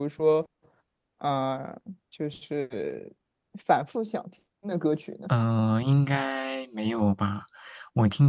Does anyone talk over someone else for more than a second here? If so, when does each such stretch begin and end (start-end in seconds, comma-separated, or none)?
none